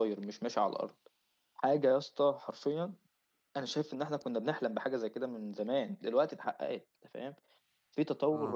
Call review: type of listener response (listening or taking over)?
listening